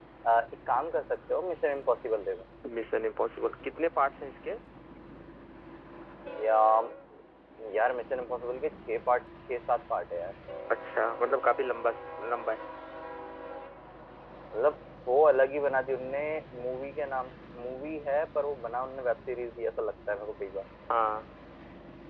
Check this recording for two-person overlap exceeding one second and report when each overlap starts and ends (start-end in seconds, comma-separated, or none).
none